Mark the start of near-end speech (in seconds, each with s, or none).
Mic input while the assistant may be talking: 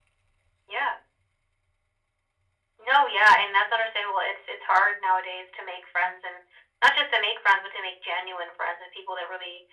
none